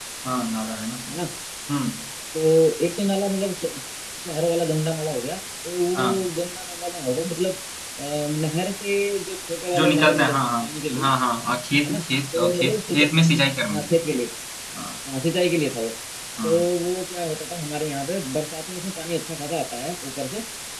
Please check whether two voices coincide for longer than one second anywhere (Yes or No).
Yes